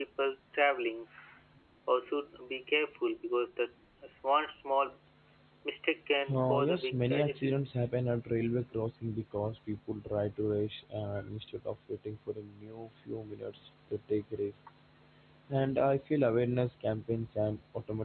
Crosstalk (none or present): present